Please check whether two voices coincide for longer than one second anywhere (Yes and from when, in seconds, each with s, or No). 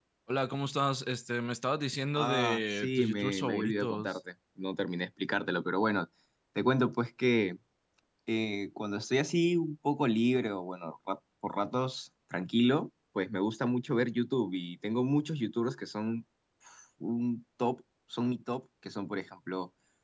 Yes, from 2.1 s